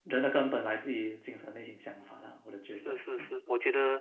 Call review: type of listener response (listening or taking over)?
taking over